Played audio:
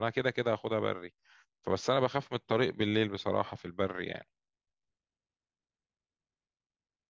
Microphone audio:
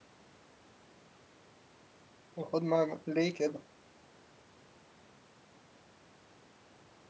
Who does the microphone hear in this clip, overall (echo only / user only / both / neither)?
user only